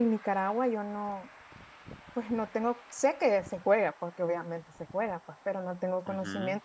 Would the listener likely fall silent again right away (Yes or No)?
Yes